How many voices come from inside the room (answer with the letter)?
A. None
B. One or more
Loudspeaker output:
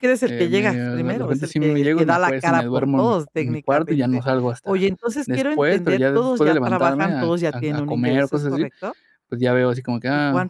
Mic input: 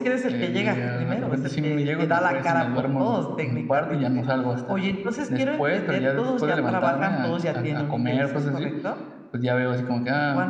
A